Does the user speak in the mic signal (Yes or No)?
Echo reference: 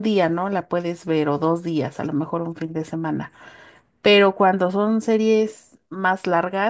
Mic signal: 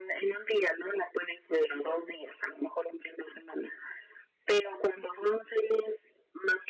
No